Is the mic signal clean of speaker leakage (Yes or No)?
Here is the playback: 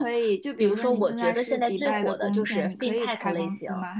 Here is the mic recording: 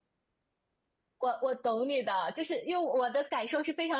Yes